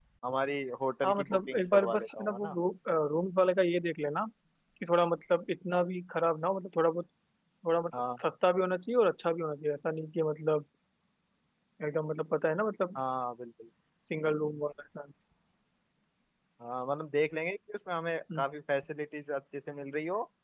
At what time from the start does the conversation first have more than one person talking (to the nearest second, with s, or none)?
1 s